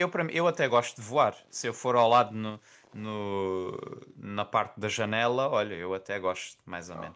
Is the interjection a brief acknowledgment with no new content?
No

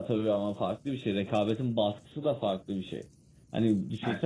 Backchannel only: Yes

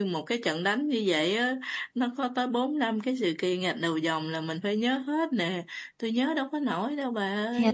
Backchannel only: No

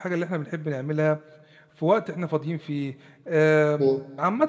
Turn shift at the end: No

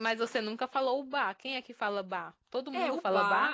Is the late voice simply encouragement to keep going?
No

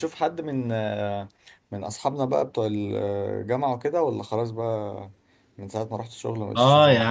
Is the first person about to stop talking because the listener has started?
Yes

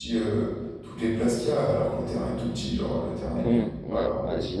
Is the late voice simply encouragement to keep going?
No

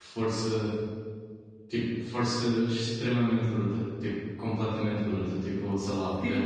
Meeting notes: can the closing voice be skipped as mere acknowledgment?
Yes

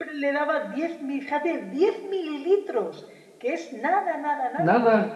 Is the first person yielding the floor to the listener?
No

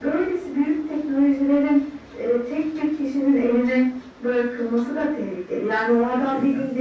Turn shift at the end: No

